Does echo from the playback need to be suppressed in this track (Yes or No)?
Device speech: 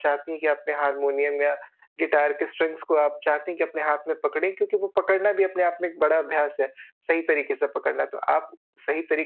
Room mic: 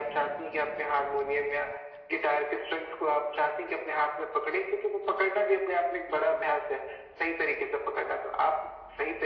Yes